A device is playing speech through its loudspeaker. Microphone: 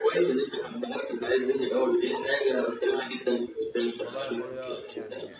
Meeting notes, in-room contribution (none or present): present